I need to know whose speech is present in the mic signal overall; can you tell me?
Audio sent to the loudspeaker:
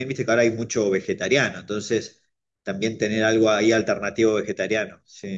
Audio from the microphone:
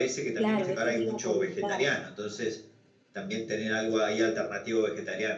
both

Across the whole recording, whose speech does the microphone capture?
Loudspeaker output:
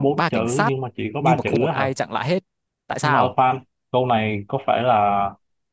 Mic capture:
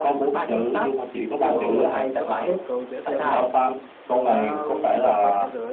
both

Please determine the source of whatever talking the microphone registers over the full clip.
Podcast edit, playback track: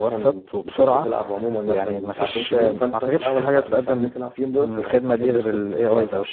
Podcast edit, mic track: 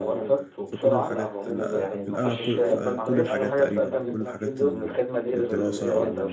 both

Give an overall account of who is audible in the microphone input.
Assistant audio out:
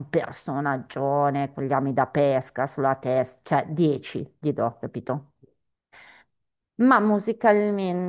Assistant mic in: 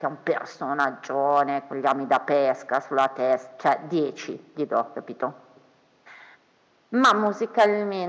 echo only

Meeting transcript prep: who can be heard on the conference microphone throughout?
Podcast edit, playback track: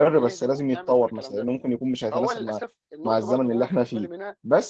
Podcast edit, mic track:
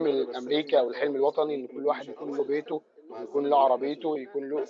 both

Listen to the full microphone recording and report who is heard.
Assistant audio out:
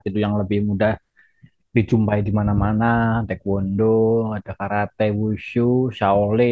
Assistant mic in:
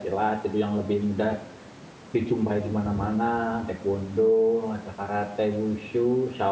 echo only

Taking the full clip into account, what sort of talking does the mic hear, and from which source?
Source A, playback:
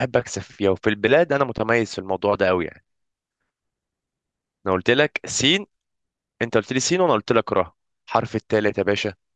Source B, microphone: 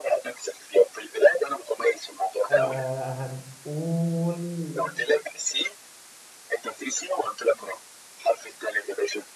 both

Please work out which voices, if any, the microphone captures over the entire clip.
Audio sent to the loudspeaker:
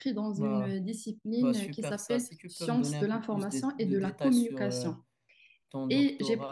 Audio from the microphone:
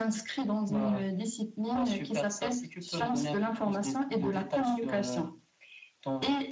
echo only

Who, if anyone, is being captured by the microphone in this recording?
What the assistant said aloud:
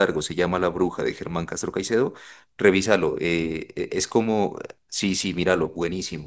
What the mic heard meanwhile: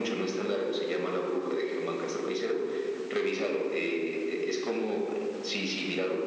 echo only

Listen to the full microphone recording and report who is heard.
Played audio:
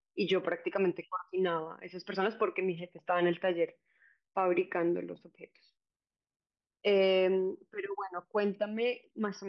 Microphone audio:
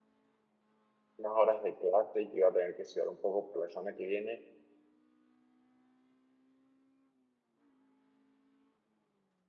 user only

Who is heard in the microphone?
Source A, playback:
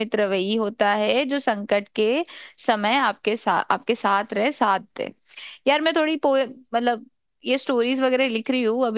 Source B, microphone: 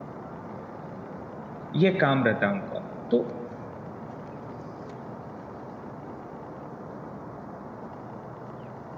user only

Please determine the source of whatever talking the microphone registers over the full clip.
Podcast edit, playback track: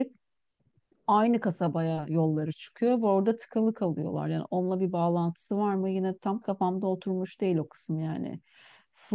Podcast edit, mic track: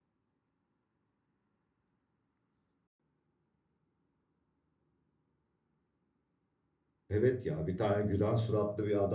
user only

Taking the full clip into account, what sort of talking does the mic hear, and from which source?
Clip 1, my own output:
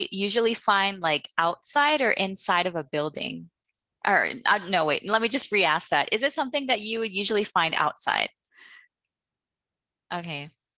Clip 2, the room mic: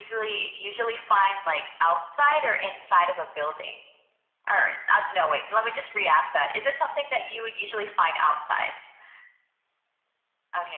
echo only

